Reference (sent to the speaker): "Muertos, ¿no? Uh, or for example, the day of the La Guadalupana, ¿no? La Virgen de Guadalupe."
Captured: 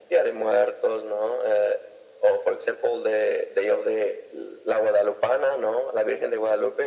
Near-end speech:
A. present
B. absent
B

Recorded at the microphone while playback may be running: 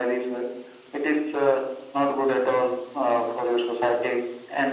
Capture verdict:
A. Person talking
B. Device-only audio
B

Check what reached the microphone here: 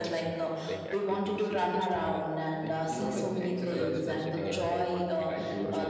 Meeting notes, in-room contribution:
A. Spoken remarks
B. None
A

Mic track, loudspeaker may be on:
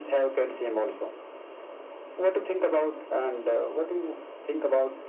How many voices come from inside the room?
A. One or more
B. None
B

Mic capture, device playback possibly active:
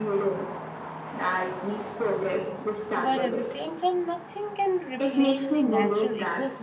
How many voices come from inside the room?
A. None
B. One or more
B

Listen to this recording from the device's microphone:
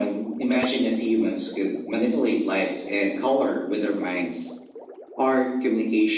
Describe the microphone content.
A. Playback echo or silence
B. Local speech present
A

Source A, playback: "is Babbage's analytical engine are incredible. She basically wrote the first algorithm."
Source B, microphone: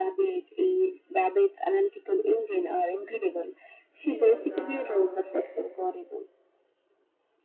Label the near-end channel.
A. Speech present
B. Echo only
A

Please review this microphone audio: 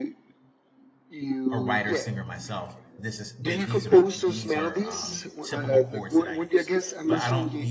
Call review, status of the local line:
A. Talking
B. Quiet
A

